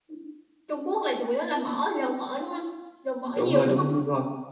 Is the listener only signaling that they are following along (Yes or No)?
No